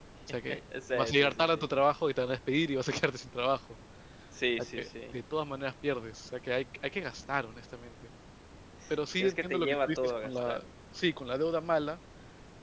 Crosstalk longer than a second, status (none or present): present